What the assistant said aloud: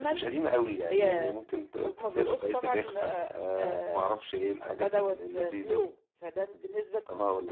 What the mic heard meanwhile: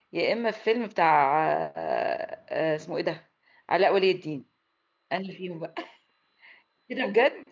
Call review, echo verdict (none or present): none